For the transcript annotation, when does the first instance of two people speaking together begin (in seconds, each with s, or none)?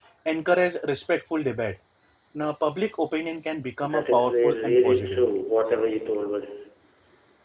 3.8 s